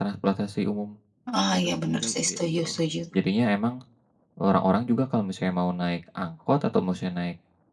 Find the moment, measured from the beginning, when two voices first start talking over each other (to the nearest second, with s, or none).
2 s